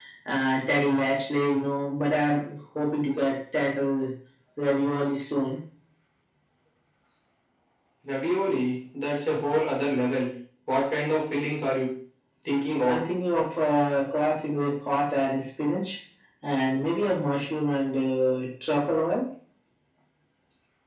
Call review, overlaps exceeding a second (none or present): none